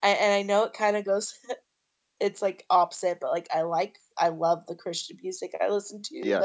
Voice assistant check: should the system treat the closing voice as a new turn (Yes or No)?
No